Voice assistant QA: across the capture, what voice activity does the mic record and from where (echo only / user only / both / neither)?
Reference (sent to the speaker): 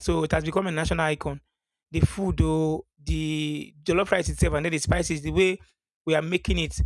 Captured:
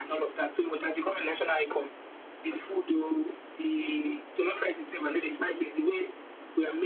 echo only